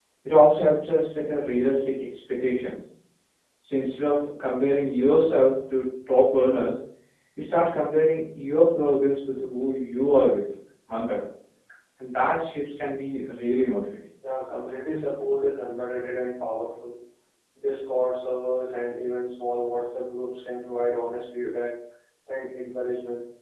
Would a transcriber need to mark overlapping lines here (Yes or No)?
No